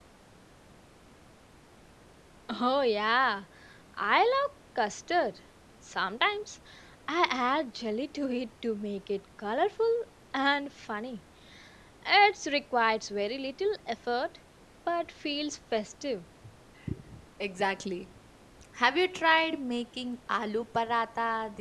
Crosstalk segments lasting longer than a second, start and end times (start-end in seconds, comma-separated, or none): none